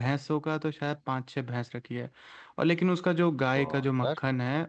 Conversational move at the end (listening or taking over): listening